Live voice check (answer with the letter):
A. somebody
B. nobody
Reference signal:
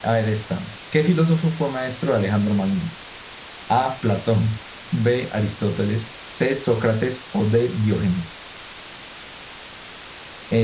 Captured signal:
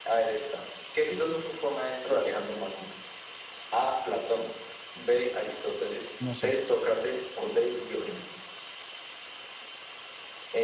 A